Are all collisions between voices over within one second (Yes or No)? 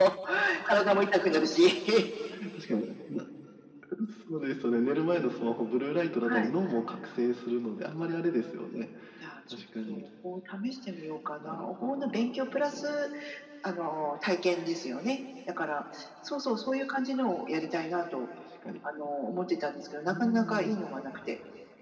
No